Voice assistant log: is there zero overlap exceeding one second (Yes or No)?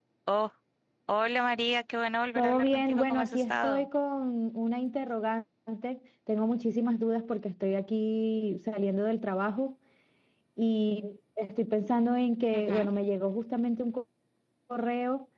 No